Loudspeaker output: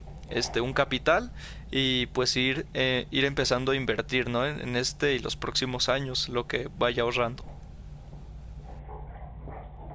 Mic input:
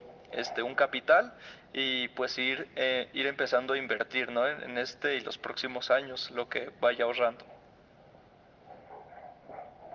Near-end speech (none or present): none